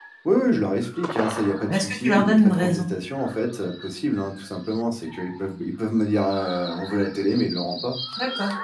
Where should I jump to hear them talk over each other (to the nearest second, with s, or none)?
2 s